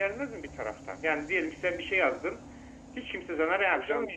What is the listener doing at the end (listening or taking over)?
taking over